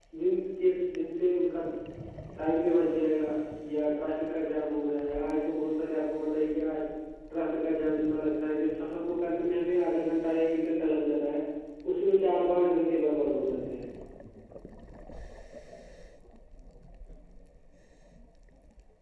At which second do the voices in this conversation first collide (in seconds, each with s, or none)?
none